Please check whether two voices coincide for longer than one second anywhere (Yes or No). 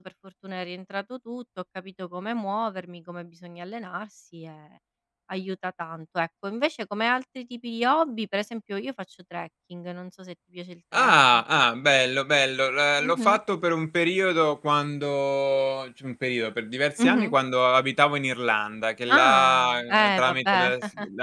Yes